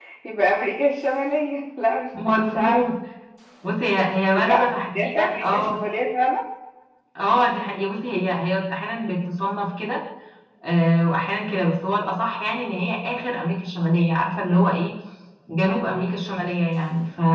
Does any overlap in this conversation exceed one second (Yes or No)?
Yes